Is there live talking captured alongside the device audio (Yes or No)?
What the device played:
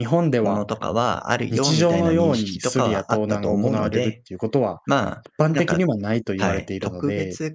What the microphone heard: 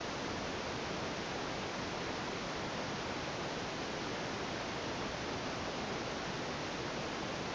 No